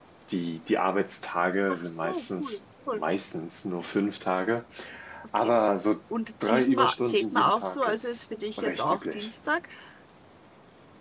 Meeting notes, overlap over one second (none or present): present